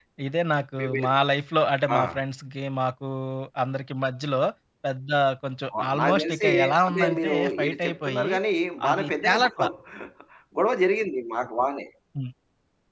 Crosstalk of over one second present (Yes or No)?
Yes